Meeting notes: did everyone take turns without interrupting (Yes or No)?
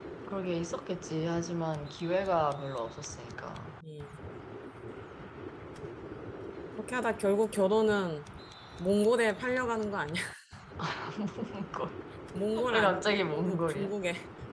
No